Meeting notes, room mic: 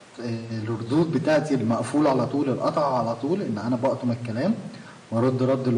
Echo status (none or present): none